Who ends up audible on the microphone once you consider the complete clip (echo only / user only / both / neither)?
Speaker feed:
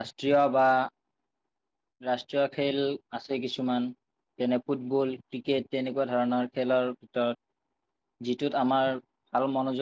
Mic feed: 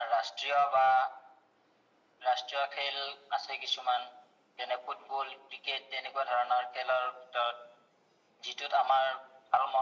echo only